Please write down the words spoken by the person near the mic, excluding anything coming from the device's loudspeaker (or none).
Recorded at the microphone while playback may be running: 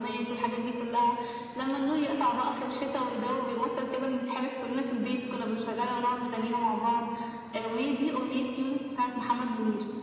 none